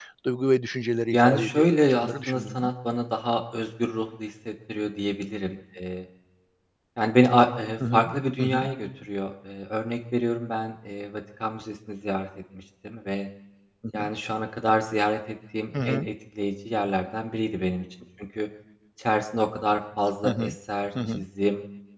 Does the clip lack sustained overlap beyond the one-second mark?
No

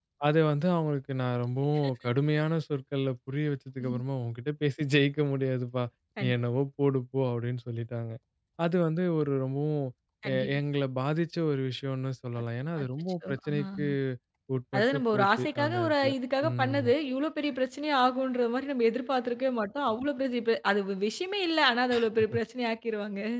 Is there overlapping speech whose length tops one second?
Yes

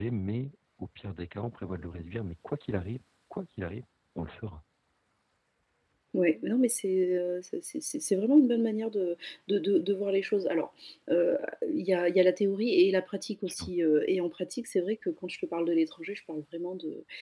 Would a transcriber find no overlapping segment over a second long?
Yes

